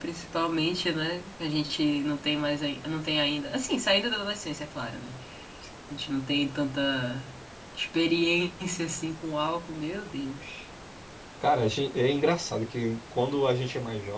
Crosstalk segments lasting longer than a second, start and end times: none

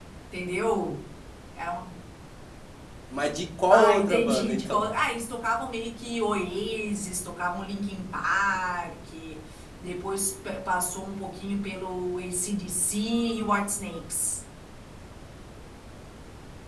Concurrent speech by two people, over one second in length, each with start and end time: 3.7-4.9

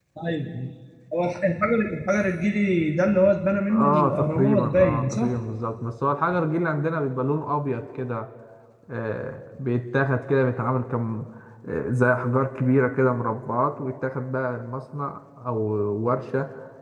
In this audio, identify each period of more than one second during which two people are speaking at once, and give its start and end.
3.7-5.4

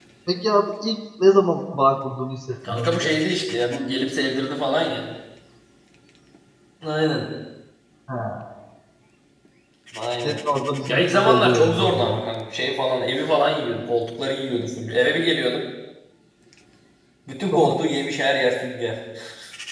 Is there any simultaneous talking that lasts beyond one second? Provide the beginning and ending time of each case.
10.9-12.2

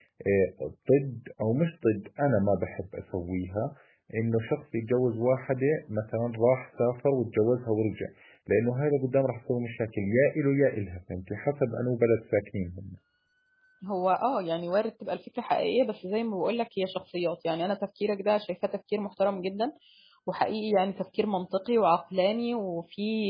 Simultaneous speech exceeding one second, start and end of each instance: none

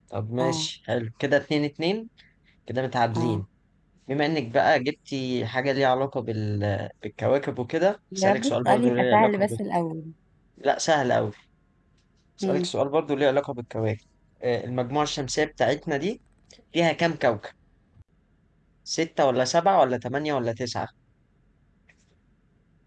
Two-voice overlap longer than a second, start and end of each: 8.2-9.5

